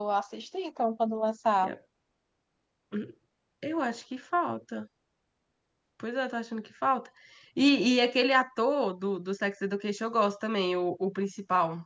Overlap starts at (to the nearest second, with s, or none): none